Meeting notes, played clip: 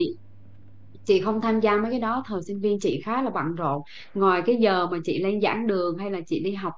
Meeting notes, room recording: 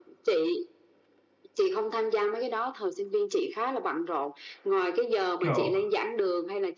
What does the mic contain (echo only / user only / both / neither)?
both